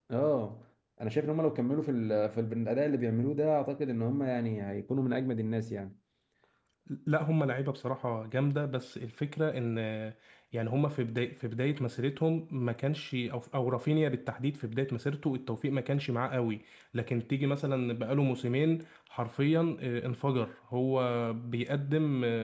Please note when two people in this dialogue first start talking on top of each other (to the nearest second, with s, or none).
none